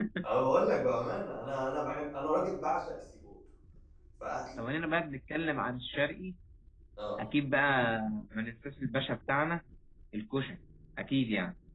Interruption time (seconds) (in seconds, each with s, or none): none